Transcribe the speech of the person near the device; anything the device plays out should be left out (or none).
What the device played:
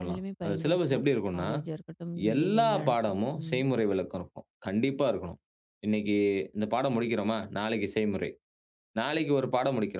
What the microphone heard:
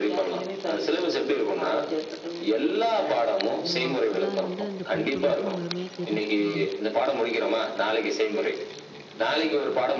ஓ! அப்பதான் அது வந்து அந்த படிப்ப பத்தி முழுமையா தெரிஞ்சுக்க முடியும்.